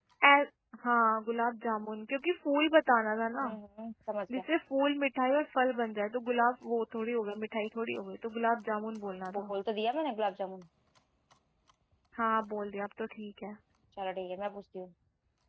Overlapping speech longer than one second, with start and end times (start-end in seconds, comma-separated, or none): none